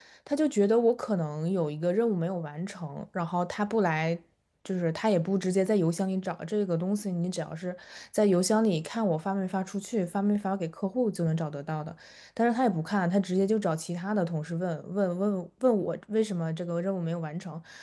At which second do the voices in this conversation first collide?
none

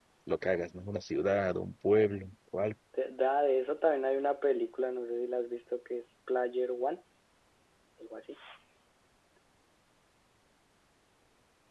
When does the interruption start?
none

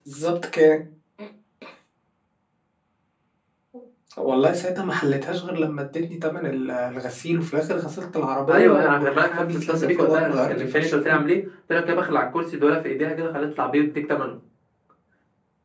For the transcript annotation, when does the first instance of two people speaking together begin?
8.5 s

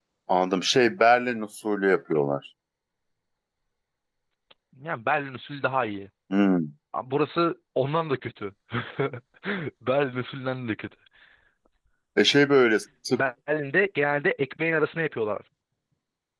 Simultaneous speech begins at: none

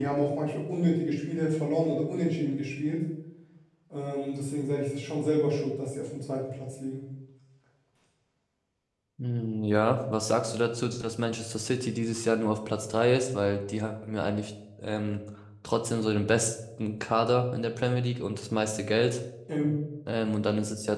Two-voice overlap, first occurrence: none

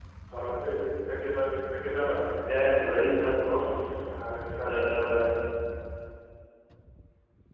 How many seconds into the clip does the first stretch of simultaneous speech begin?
2.5 s

